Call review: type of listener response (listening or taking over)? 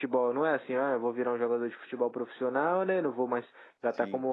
listening